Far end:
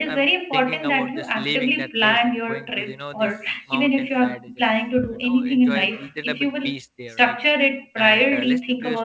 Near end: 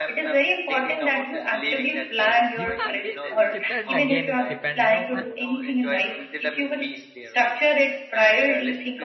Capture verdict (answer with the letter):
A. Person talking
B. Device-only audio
A